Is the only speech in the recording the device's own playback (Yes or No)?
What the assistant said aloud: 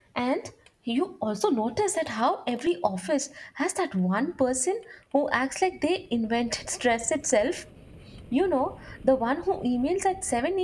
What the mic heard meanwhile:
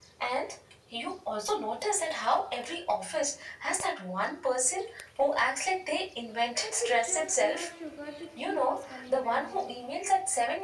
No